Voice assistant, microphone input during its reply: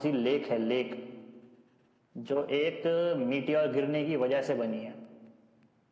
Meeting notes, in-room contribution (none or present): none